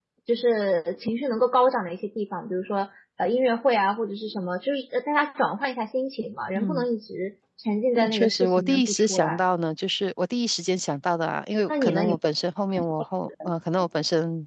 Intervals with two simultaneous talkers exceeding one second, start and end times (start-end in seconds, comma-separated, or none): 8.0-9.4